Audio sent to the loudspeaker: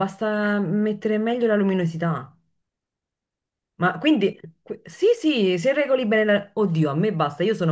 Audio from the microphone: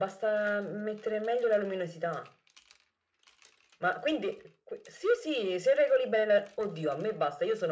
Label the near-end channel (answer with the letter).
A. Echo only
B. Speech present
A